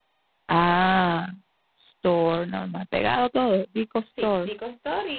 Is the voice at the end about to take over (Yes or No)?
Yes